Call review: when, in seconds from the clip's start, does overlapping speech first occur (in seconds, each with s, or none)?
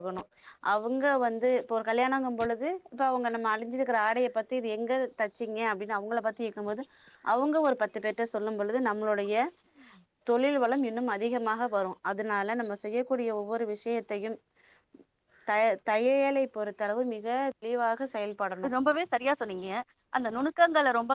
none